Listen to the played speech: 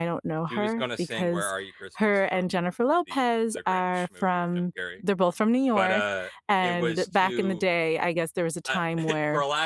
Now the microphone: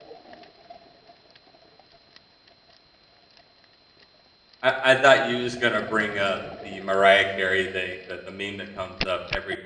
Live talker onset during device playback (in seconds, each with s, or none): 4.6 s